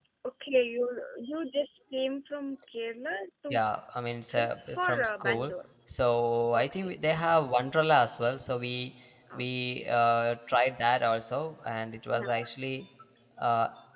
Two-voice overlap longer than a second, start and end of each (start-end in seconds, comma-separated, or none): 4.3-5.5